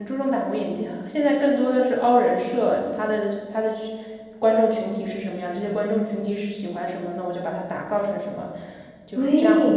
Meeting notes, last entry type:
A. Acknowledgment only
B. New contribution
B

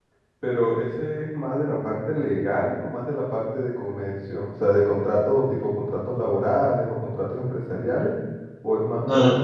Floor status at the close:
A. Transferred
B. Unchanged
B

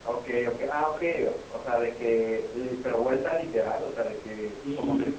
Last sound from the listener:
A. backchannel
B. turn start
A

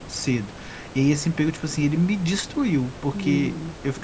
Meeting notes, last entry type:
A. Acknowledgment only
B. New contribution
A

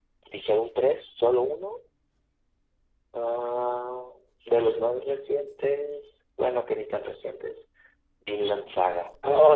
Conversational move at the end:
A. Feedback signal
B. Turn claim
B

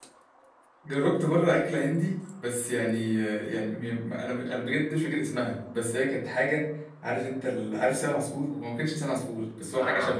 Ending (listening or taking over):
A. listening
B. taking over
A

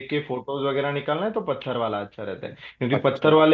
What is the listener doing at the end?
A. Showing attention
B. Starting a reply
A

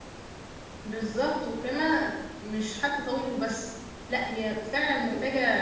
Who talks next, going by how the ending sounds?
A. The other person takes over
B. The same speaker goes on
B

